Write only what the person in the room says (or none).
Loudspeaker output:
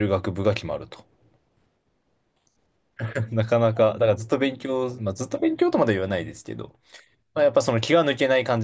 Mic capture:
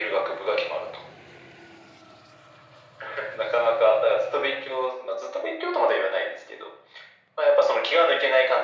none